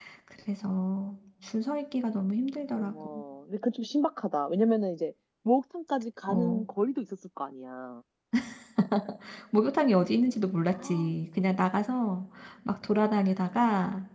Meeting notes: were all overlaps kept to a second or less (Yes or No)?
Yes